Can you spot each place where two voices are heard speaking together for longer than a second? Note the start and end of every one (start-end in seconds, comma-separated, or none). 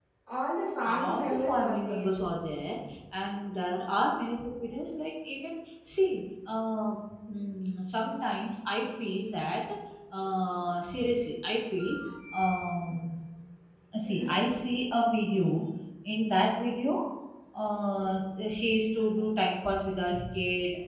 0.8-2.1